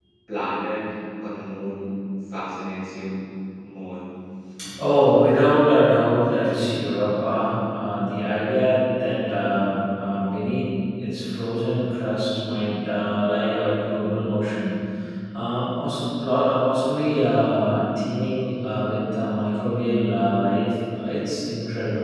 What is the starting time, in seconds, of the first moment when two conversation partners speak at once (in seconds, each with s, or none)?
none